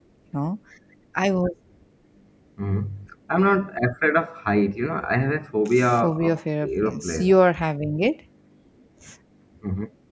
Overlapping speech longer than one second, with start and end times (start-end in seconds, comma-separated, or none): 5.7-7.4